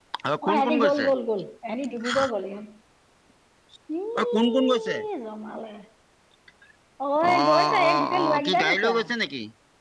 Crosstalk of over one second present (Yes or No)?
Yes